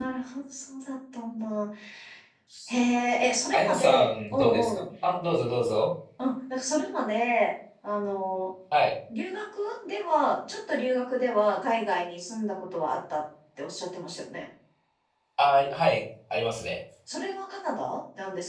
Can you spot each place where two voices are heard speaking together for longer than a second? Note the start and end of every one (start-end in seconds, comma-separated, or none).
3.5-4.8